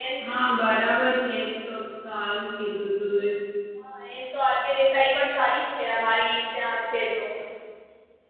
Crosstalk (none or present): none